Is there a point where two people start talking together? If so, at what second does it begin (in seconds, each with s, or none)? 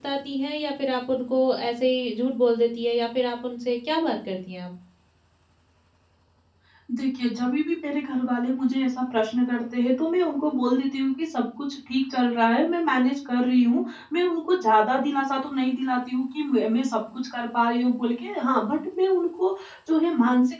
none